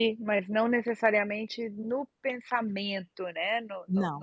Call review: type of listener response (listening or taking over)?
taking over